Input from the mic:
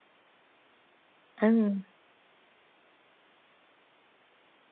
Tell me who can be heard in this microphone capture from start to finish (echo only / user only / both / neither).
user only